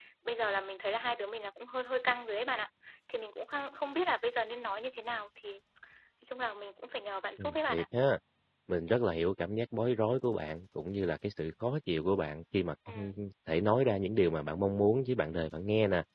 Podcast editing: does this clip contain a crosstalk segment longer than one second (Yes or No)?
No